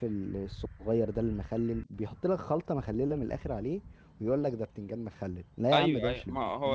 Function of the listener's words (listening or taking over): taking over